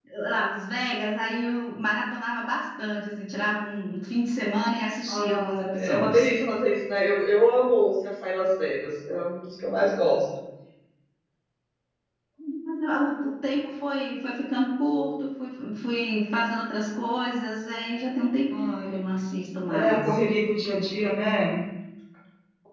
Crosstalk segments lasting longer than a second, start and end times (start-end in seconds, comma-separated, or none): 5.1-6.3